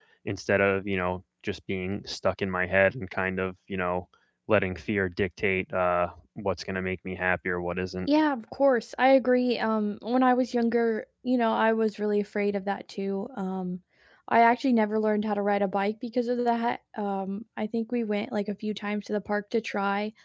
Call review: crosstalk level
none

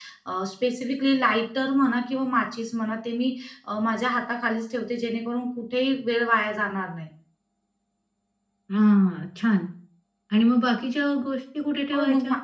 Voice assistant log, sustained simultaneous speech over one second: none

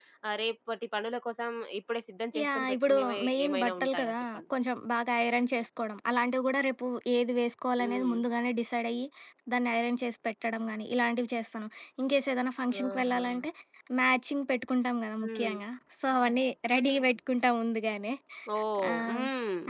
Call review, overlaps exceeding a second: present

